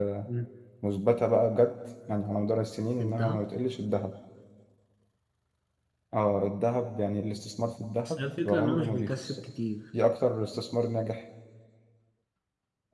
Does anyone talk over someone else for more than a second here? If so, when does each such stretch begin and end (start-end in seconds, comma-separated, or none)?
8.1-9.4